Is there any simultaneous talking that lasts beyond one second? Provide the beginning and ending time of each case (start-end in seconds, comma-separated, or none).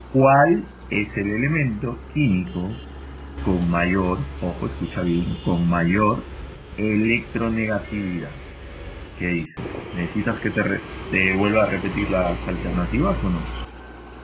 none